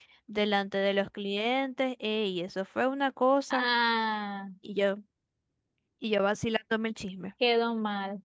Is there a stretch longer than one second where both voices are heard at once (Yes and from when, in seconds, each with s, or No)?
No